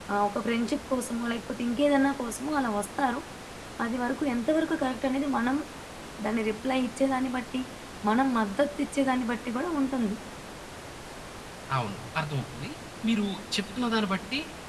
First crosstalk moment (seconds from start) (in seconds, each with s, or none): none